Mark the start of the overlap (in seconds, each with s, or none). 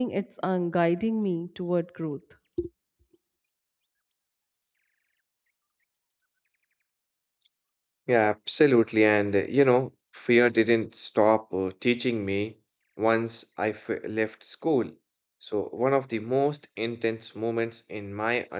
none